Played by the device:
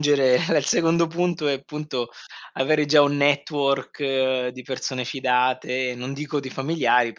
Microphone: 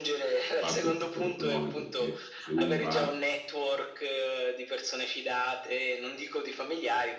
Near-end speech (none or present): present